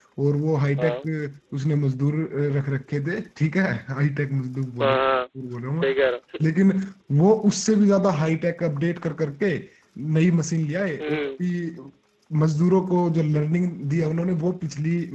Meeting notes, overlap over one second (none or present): none